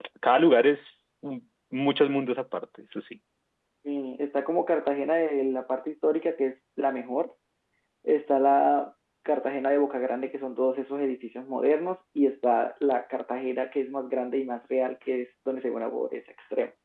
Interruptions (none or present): none